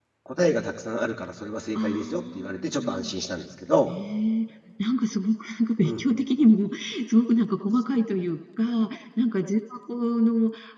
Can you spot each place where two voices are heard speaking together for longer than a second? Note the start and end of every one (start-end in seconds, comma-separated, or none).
1.7-3.1